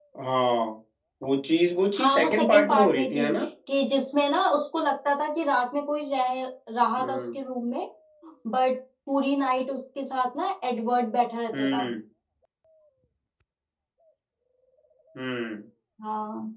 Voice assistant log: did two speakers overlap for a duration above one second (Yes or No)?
Yes